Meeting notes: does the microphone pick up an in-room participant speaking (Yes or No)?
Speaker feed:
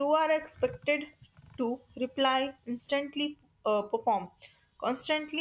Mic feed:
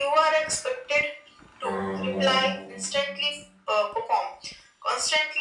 Yes